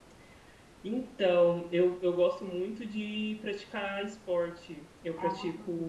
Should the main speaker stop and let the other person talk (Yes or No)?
No